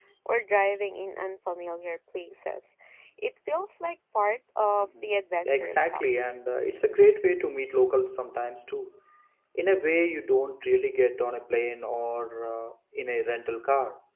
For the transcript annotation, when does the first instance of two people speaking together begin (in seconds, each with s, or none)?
4.8 s